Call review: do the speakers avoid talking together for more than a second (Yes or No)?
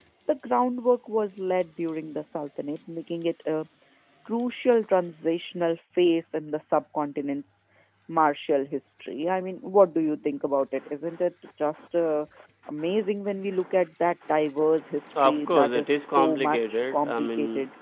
No